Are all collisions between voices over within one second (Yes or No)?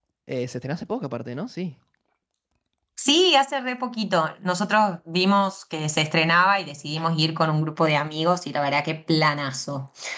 Yes